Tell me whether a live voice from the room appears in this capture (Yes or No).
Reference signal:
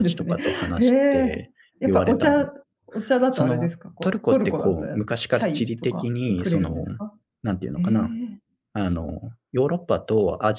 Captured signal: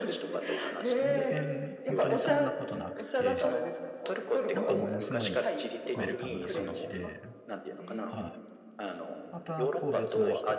Yes